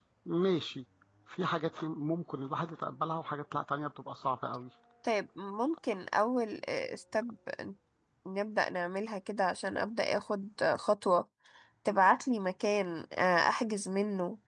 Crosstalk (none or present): none